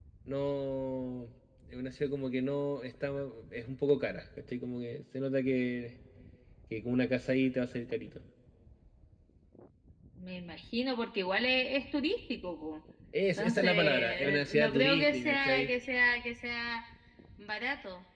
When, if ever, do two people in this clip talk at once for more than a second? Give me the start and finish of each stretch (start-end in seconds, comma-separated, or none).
13.4-15.7